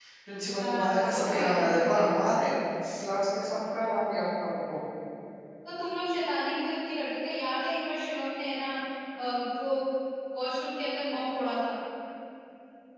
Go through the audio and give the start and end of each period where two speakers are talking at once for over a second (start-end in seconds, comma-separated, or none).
0.5-2.0